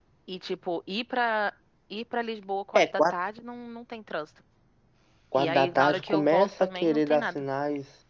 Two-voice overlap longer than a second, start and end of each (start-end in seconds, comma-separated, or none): 5.3-7.4